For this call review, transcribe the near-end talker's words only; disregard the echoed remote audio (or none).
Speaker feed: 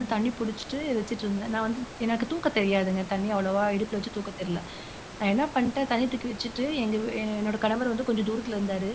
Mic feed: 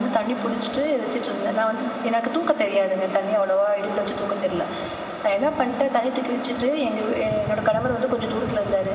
none